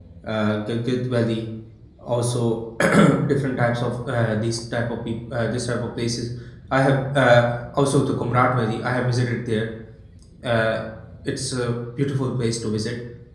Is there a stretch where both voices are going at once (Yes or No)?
No